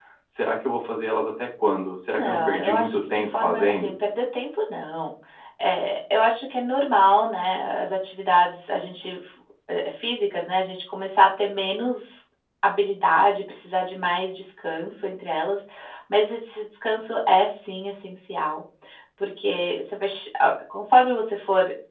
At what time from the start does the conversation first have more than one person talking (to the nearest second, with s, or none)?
2 s